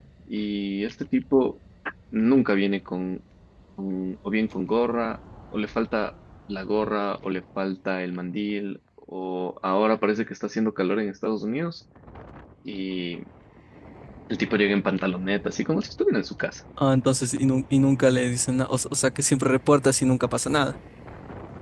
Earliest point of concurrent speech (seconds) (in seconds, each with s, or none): none